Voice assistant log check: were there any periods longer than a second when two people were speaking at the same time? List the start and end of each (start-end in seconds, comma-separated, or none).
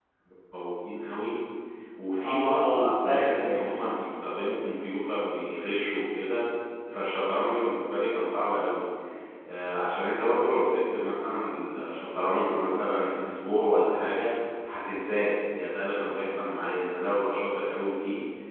2.2-3.7